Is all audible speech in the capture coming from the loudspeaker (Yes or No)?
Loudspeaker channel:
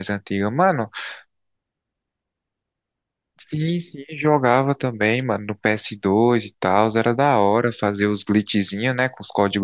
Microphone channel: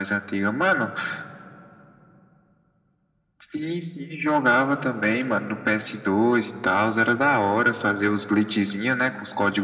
Yes